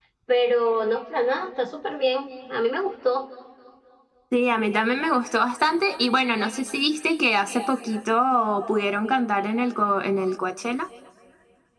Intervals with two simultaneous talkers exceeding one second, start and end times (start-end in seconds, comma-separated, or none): none